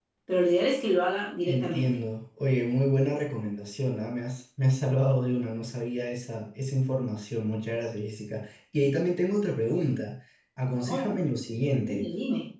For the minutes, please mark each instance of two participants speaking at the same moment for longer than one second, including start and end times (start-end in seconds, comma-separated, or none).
none